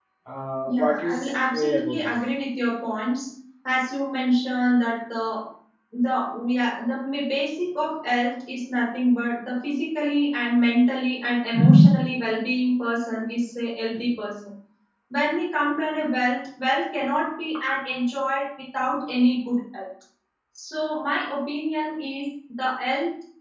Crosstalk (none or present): present